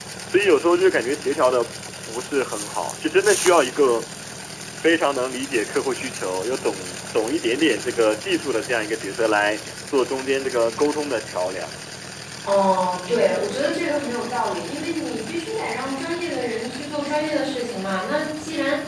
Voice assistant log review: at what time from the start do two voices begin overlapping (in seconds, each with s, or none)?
none